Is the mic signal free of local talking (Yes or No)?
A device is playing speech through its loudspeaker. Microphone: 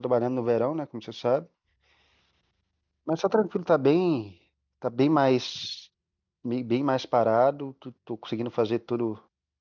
No